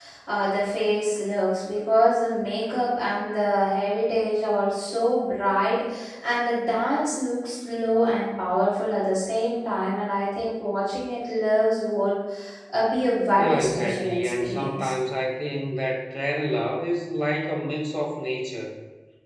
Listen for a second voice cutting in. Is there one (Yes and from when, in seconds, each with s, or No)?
Yes, from 13.4 s